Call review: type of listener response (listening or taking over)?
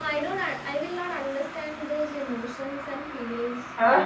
taking over